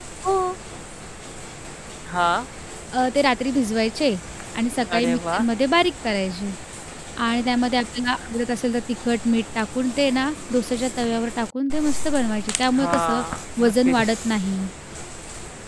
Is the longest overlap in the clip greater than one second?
No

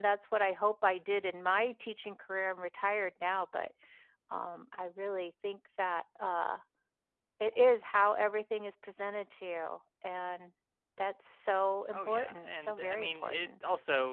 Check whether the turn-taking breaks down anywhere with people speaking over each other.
Yes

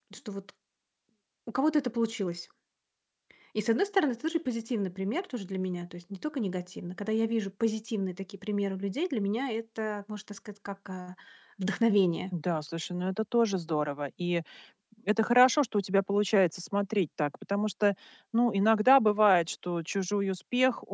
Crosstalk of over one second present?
No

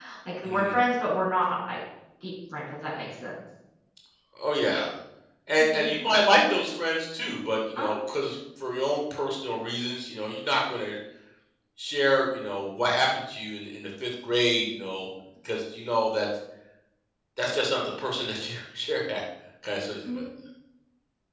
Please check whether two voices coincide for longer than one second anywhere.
No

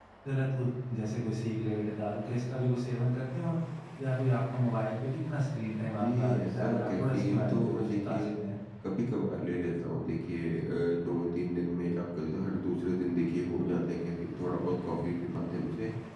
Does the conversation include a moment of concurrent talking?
Yes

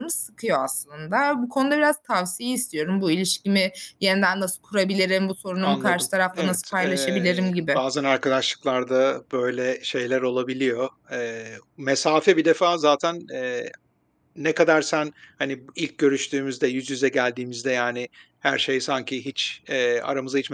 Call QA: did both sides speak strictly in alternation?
No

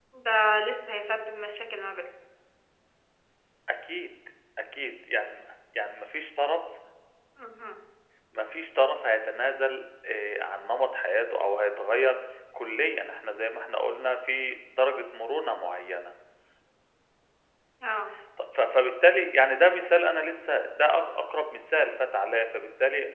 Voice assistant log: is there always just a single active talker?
Yes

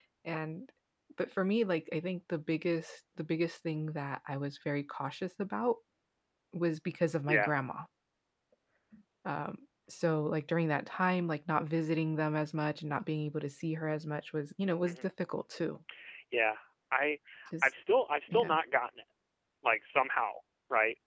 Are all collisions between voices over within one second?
Yes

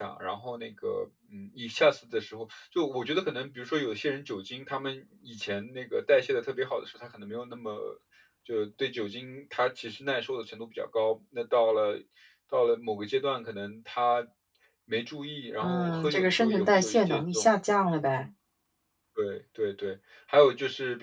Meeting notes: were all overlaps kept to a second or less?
No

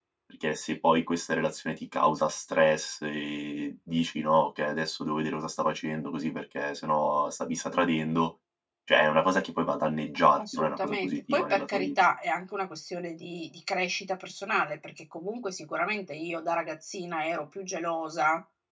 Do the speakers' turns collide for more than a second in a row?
Yes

